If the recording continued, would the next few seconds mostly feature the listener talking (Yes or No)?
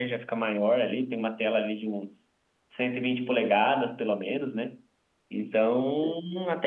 No